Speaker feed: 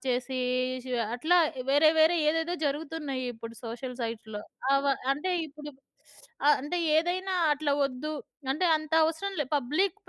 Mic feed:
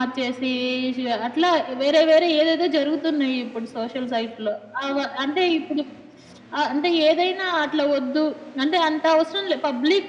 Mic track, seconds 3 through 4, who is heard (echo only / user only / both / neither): echo only